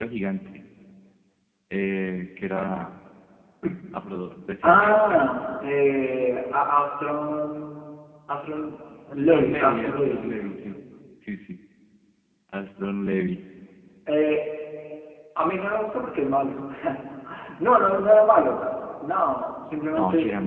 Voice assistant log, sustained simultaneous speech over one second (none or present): present